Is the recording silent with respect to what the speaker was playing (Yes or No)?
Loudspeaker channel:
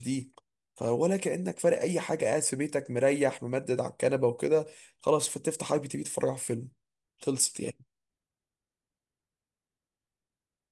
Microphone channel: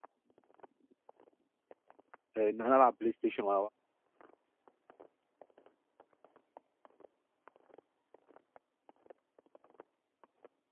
Yes